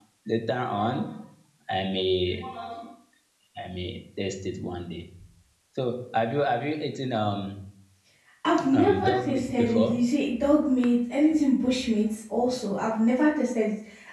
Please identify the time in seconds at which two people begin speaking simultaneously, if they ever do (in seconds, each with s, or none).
8.8 s